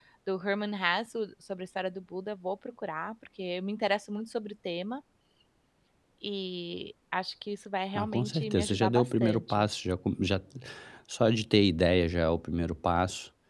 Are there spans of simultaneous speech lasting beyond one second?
Yes, from 8.0 s

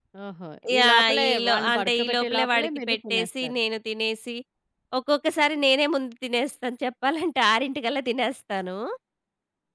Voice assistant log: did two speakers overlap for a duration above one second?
Yes, from 0.8 s

